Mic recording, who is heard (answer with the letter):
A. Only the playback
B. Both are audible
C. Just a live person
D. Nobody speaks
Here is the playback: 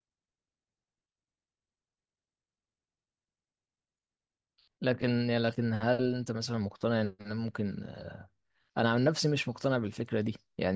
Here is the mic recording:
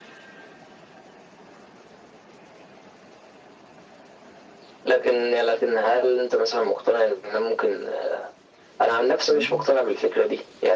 B